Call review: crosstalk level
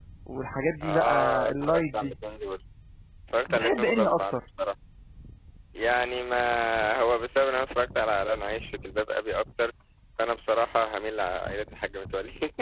present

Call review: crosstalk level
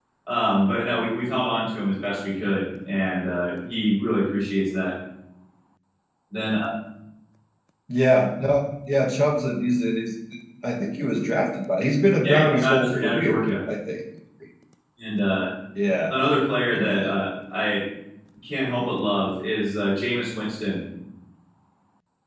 present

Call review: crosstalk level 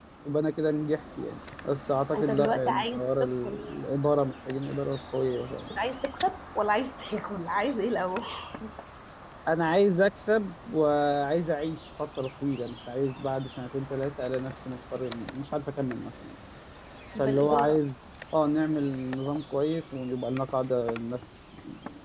present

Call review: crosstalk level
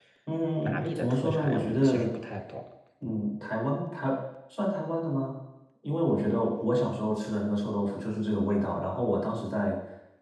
present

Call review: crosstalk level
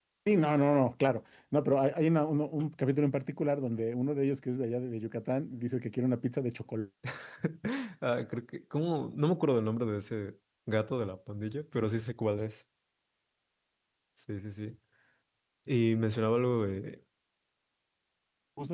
none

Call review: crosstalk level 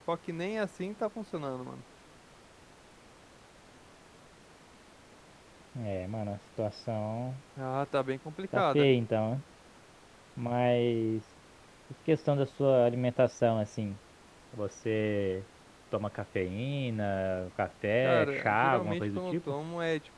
present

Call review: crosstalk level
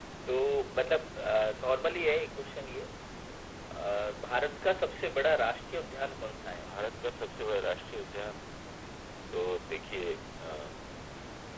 none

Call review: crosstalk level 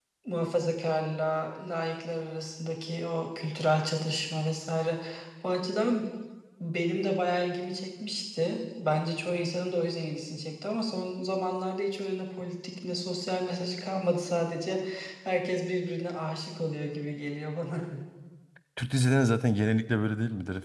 none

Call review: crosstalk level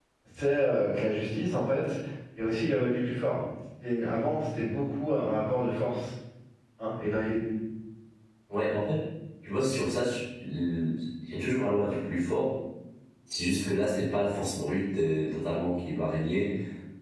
none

